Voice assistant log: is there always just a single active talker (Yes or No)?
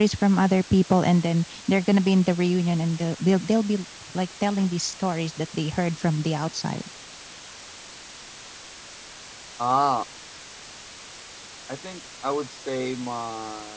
Yes